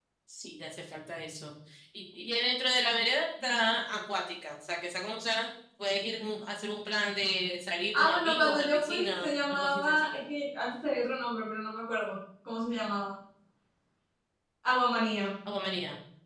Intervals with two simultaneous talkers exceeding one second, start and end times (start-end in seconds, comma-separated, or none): 8.0-10.2